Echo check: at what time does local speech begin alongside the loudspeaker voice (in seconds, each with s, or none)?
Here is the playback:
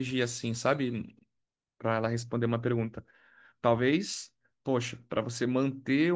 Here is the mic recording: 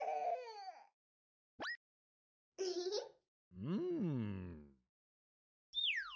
none